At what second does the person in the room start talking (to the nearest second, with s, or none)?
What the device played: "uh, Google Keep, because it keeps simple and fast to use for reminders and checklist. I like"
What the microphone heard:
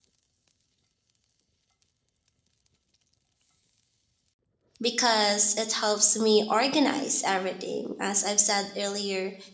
5 s